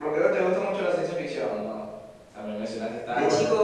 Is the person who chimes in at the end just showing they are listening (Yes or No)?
No